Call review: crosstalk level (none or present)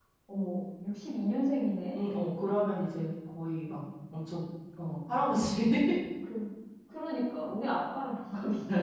none